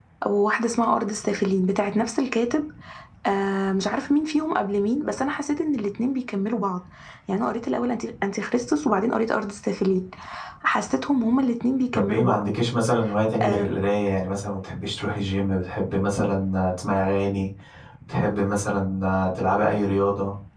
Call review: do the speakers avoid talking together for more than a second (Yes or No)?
Yes